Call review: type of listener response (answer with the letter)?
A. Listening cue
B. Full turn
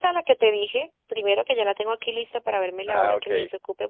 A